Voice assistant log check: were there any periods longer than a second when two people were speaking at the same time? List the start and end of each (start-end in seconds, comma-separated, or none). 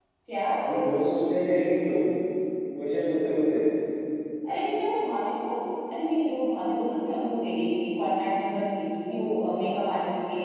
none